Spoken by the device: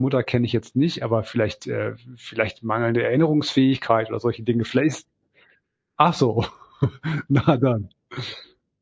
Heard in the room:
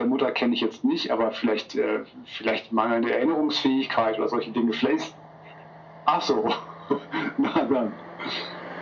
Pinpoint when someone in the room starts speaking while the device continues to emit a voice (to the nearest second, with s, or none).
none